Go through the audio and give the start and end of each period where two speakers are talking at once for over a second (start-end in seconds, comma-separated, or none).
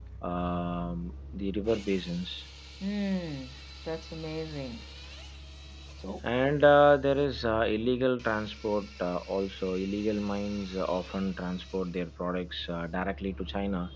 none